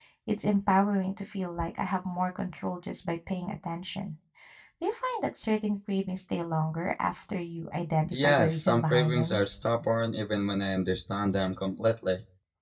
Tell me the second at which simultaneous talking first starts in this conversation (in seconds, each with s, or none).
8.1 s